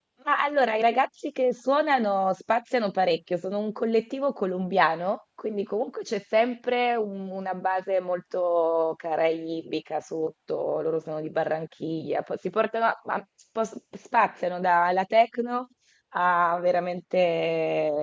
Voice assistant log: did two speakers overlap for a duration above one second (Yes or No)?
No